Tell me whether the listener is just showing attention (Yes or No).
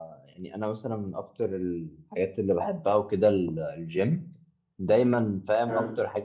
Yes